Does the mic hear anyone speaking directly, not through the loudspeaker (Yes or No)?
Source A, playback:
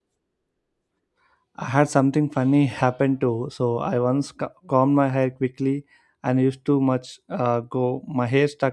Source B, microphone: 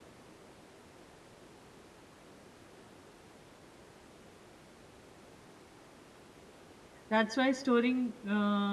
Yes